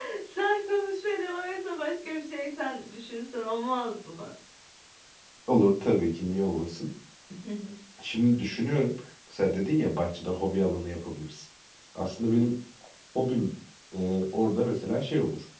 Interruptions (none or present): none